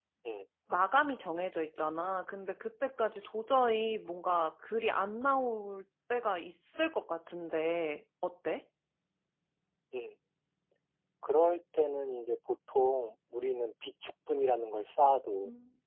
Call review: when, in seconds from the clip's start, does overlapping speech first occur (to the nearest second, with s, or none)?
none